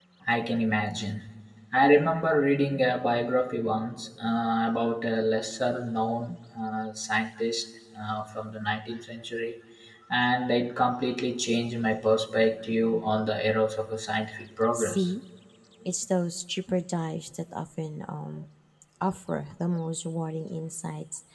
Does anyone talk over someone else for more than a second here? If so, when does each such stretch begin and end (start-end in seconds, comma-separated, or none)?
none